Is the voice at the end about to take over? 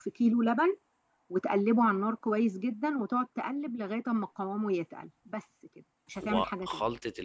Yes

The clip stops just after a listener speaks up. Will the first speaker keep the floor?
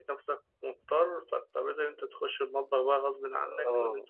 No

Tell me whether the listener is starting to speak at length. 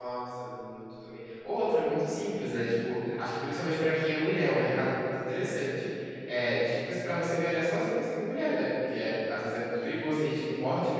No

